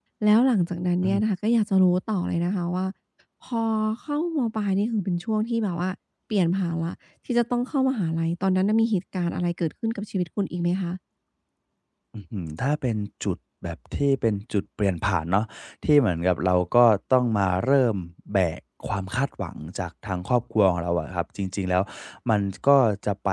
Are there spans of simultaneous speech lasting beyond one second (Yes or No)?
No